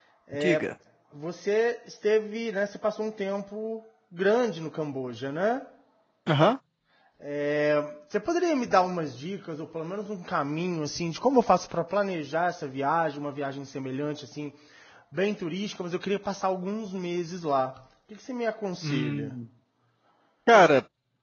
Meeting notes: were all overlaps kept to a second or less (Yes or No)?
Yes